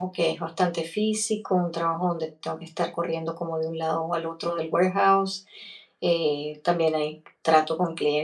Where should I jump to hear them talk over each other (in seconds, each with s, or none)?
none